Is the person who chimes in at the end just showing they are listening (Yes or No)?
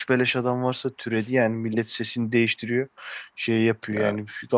Yes